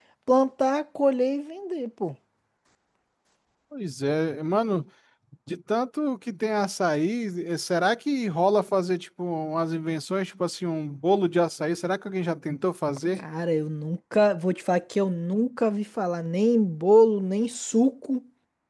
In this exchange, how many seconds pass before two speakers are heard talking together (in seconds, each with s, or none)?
none